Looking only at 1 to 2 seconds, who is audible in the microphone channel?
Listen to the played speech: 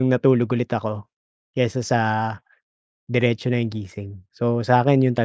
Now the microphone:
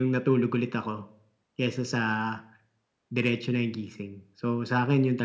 echo only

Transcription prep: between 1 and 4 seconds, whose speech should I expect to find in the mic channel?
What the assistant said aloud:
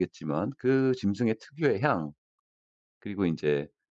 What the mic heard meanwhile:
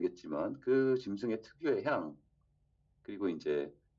echo only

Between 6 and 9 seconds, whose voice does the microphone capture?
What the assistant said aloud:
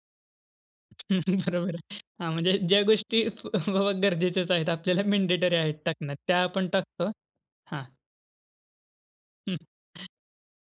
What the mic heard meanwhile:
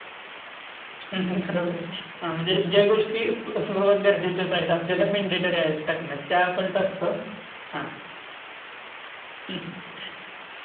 echo only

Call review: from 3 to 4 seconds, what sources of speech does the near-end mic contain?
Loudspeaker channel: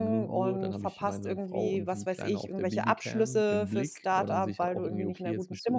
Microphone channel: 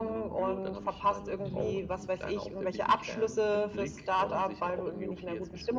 echo only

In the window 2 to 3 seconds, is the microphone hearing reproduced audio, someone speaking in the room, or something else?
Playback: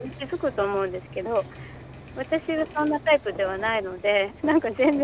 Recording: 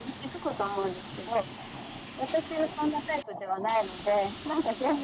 echo only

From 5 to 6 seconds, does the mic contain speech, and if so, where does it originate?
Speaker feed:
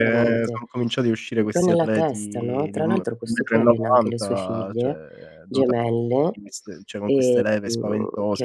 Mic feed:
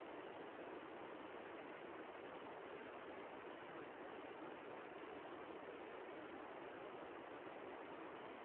neither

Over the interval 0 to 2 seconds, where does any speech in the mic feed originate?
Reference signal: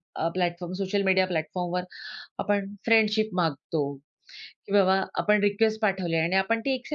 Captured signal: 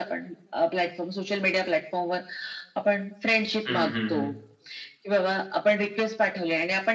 echo only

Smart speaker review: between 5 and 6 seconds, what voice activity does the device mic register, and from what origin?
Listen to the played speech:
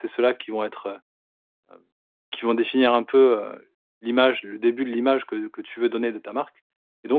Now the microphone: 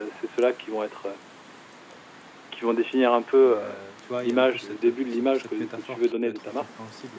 both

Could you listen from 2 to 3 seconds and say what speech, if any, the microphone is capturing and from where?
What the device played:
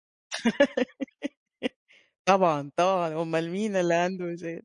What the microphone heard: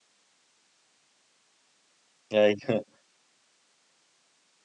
user only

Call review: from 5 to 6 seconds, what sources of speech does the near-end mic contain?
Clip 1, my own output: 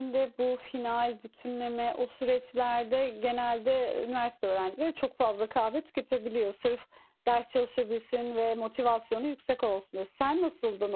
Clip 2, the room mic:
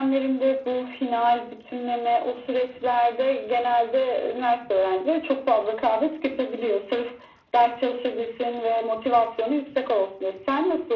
echo only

